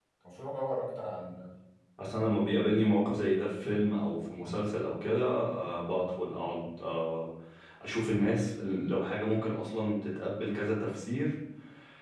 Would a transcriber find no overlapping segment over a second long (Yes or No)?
Yes